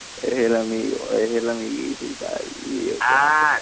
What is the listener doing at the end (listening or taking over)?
taking over